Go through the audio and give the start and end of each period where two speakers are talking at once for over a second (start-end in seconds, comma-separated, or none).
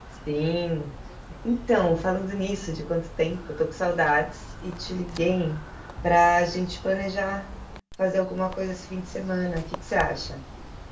none